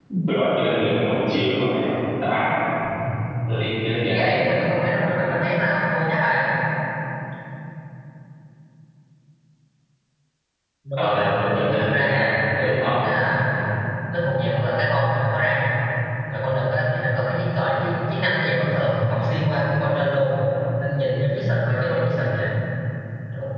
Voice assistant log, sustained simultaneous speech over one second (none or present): present